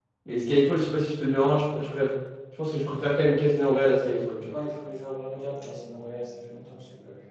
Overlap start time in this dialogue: none

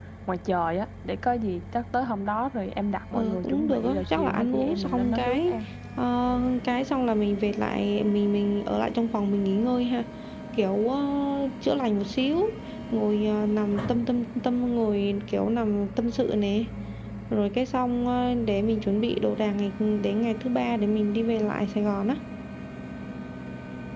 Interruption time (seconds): 3.1 s

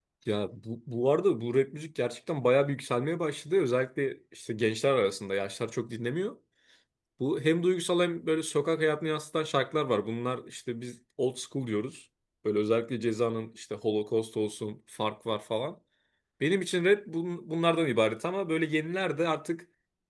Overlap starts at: none

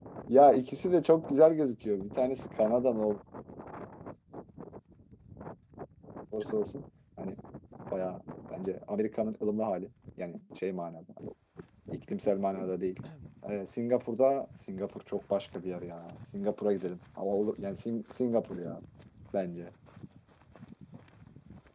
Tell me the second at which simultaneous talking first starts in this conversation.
none

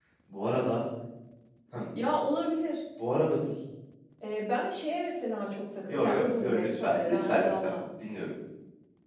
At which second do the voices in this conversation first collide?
5.9 s

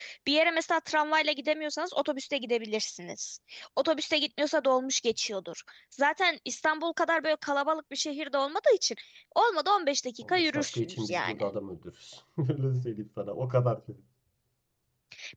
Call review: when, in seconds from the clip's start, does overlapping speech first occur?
10.2 s

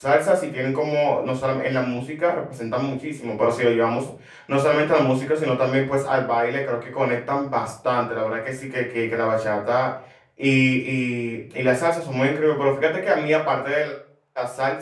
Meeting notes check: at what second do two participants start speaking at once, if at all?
none

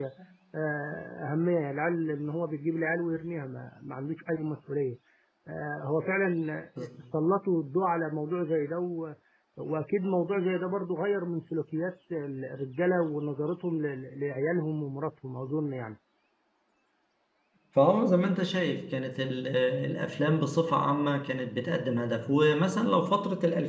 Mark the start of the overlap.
none

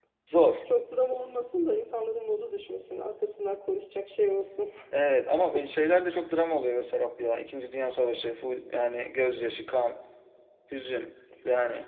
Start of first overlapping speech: none

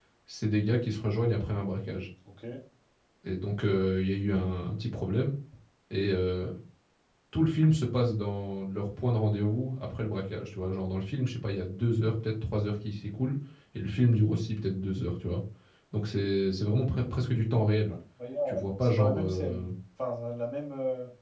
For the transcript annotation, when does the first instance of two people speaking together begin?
18.5 s

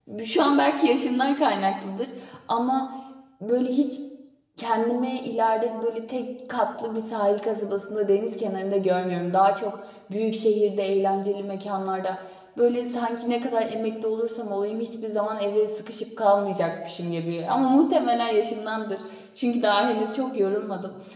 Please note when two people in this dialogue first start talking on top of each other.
none

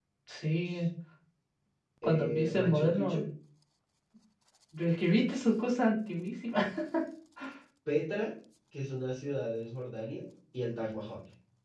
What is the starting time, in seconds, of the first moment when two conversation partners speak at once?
2.0 s

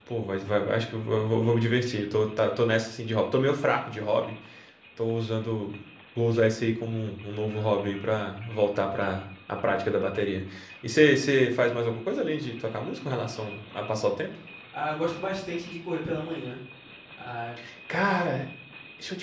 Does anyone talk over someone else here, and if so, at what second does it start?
none

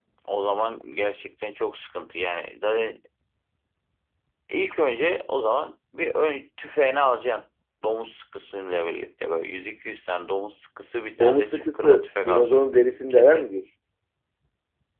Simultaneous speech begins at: 11.2 s

